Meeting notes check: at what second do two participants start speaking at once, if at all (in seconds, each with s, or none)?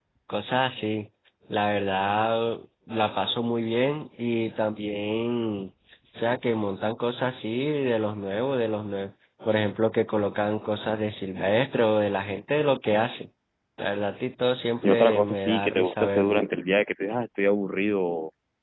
14.8 s